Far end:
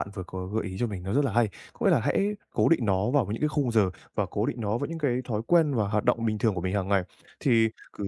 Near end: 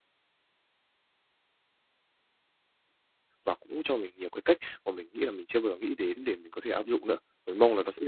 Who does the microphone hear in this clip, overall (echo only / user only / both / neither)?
user only